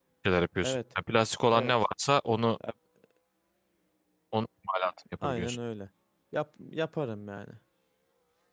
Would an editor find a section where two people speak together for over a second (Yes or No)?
No